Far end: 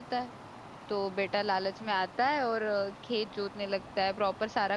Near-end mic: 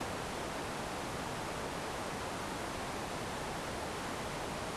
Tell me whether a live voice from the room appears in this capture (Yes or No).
No